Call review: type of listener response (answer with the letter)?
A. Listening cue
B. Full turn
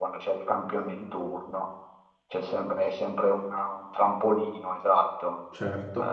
A